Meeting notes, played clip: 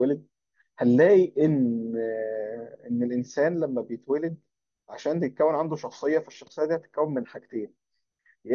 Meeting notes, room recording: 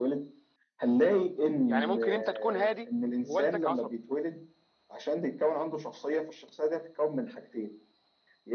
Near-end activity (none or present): present